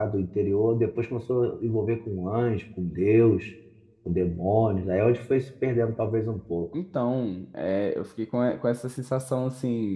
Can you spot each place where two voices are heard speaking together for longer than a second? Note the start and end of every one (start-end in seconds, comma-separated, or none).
none